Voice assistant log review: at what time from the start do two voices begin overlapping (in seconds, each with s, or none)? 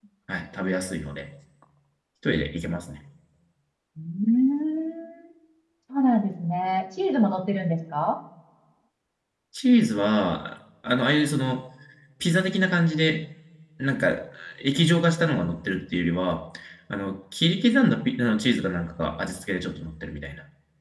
none